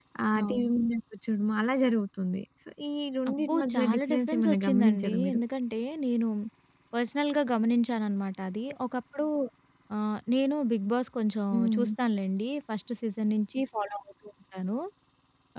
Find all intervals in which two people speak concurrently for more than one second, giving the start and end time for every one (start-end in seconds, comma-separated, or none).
3.3-5.4